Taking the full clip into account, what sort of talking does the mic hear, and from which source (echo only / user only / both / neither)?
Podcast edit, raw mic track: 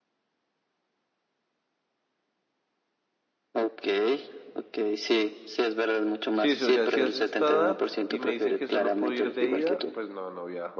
both